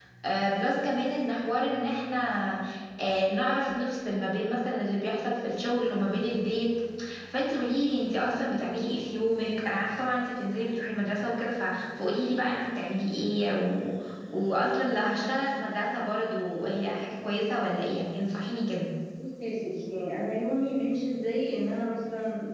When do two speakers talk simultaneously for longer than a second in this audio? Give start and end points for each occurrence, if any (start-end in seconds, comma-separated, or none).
none